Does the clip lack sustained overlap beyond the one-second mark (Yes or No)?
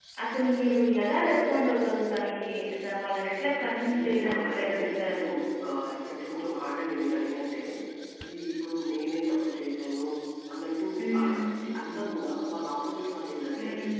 No